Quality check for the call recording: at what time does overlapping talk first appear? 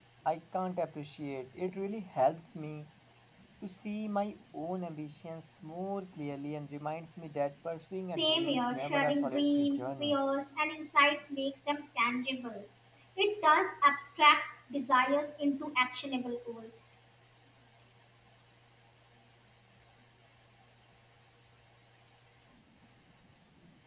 8.2 s

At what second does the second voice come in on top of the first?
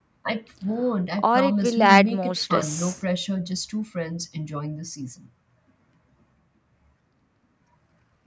1.2 s

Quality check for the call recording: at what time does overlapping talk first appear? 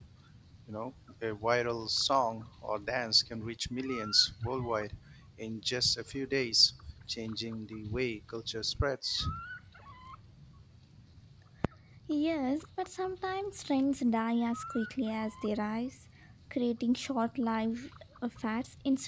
none

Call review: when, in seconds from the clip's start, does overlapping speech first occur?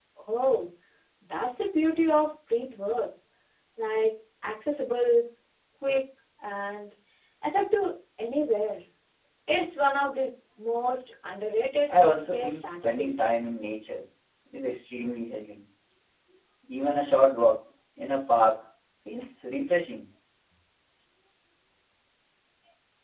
11.9 s

